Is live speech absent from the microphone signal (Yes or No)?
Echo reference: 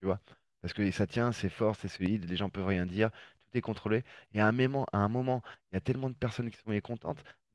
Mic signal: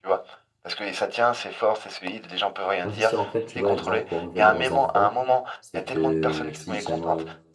No